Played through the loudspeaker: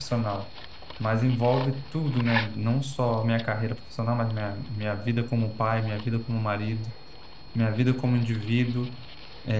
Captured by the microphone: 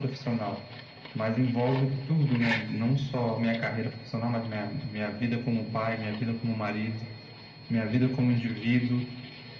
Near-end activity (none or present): none